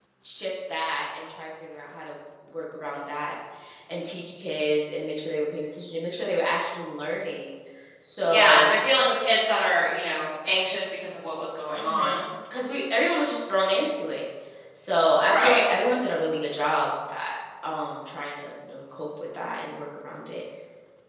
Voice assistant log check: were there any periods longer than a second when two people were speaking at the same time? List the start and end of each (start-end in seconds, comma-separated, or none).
none